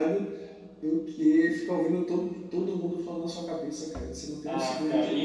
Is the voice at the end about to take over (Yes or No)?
Yes